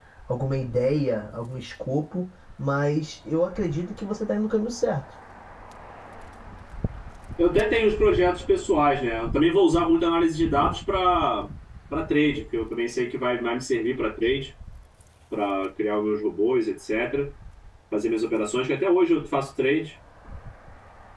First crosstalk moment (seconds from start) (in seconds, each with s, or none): none